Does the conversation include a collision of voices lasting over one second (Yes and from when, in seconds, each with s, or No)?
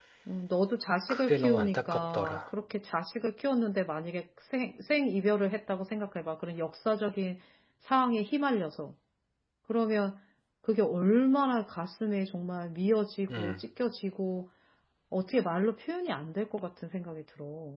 Yes, from 1.1 s